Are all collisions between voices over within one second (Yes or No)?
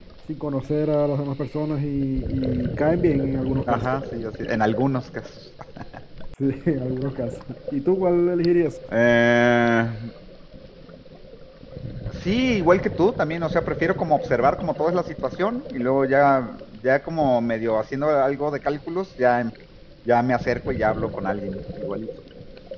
Yes